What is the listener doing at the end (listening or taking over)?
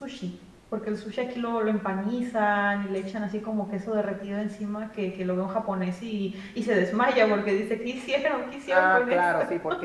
taking over